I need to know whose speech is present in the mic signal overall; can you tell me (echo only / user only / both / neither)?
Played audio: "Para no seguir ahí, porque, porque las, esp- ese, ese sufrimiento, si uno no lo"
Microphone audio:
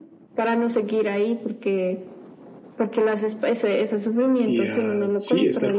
both